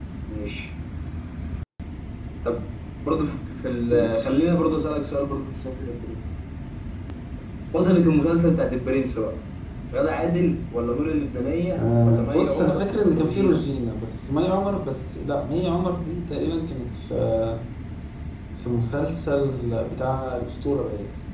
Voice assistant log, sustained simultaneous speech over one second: present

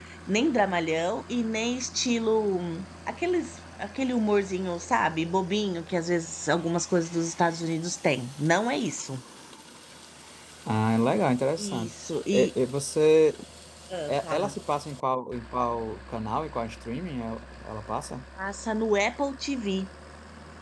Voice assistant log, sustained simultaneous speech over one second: none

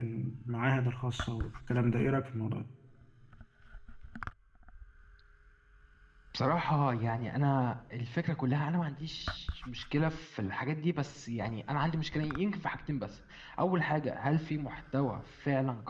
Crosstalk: none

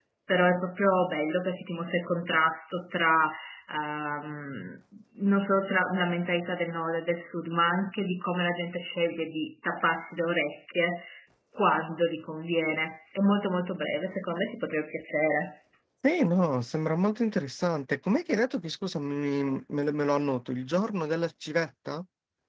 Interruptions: none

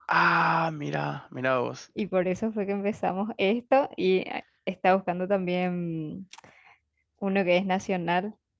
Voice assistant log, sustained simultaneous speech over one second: none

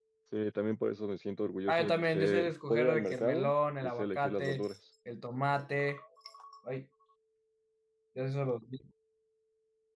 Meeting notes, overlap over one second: present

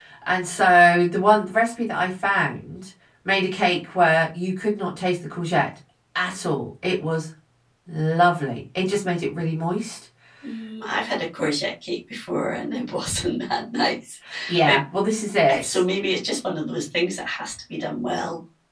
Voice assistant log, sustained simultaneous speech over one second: none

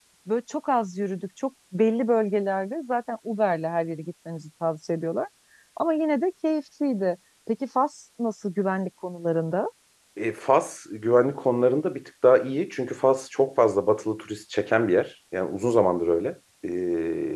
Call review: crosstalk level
none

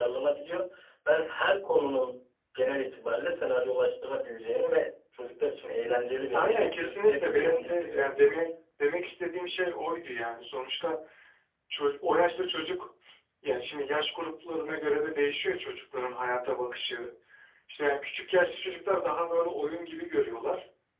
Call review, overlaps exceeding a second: present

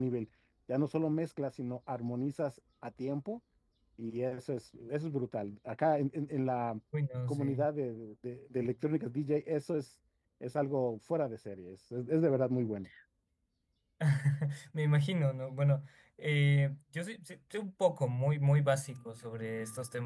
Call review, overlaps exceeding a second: none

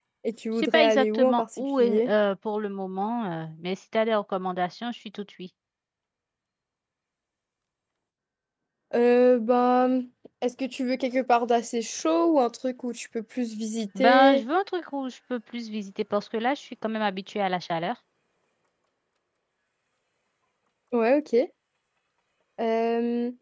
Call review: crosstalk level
present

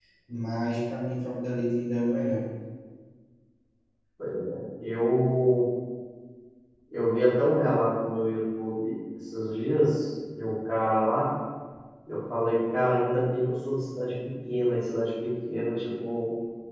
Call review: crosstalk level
none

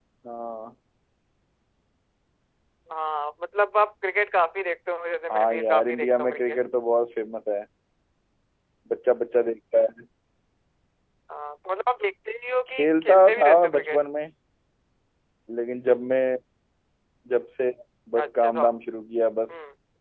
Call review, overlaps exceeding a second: present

